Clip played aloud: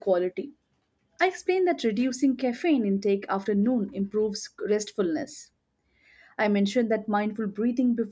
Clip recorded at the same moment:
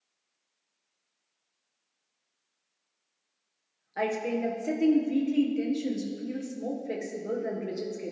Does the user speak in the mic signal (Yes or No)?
Yes